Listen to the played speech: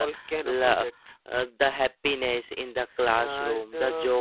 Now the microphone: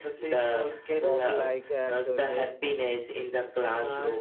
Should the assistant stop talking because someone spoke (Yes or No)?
Yes